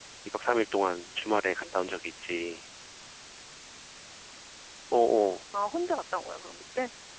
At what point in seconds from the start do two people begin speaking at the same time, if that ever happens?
none

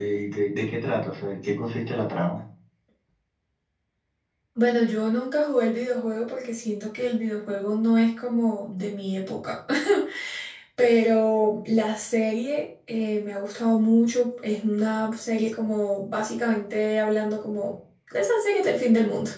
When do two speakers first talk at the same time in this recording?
none

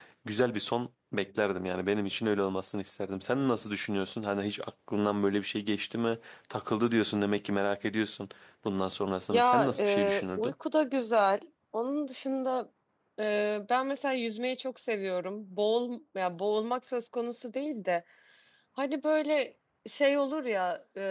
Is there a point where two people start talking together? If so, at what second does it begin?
9 s

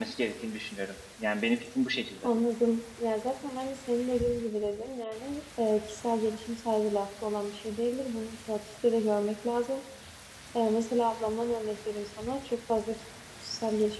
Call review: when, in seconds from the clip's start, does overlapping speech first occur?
none

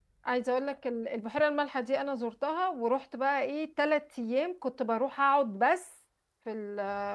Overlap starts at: none

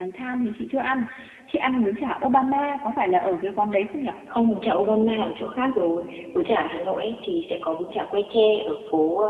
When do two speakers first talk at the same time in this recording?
none

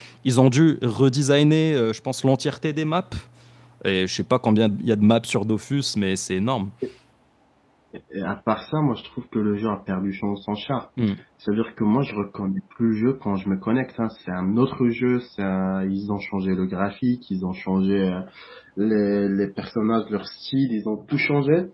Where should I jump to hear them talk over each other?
none

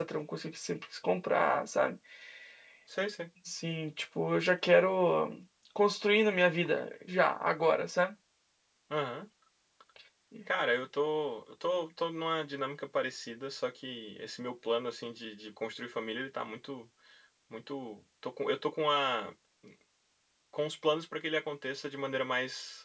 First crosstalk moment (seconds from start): none

